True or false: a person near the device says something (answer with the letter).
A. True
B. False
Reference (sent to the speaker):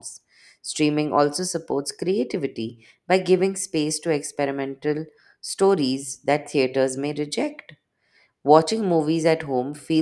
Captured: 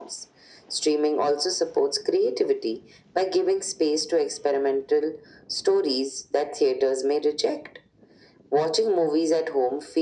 B